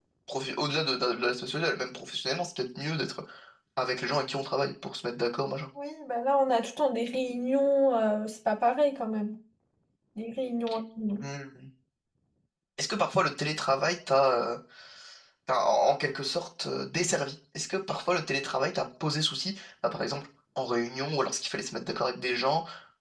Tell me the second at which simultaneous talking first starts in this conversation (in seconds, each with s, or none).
none